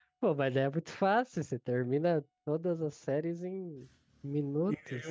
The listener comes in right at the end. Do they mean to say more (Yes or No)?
Yes